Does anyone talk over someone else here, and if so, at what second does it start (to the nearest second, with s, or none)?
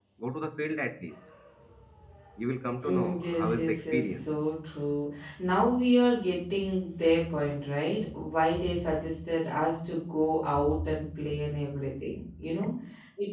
3 s